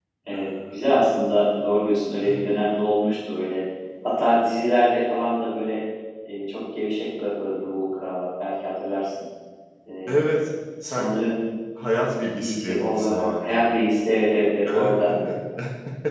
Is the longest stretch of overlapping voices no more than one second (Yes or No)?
No